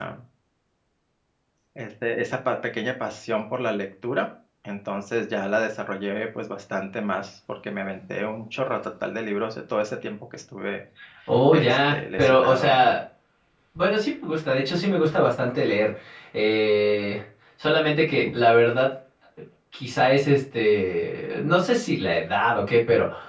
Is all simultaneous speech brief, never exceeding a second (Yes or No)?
No